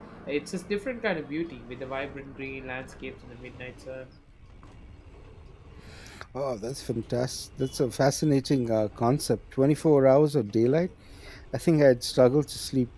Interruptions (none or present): none